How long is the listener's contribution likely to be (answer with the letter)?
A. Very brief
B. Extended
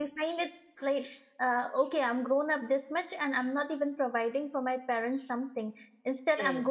A